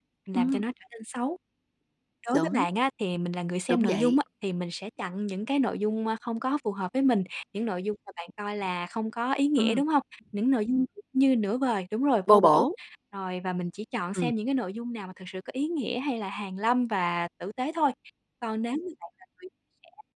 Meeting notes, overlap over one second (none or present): none